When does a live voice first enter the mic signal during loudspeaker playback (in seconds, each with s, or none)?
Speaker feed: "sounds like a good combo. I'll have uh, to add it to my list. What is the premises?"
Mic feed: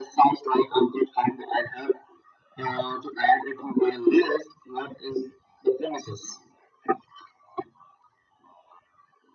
none